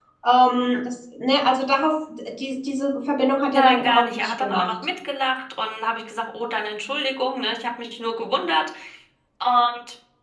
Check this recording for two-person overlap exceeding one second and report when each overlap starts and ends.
3.5-4.7

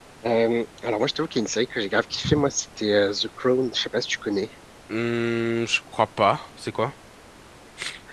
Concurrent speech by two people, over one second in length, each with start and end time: none

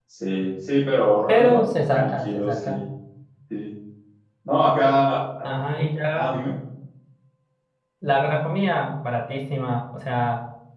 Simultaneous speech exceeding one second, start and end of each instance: 1.3-2.8

